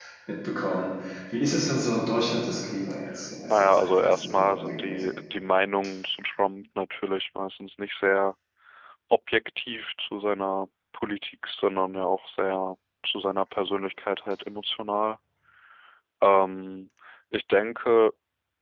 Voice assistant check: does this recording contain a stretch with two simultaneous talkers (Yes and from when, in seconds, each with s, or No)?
Yes, from 3.5 s